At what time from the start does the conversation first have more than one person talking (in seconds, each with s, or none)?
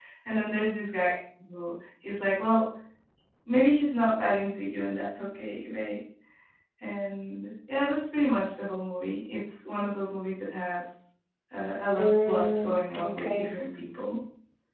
12.0 s